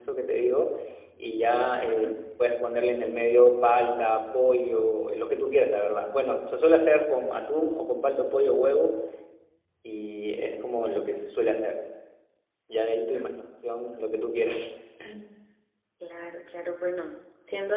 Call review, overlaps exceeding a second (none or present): none